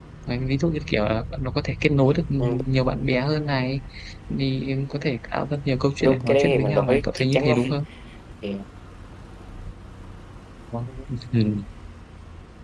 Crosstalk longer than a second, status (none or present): present